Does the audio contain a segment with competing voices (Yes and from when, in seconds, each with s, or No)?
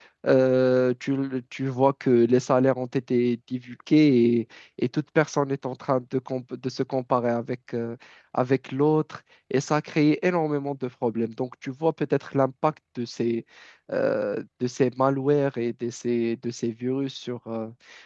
No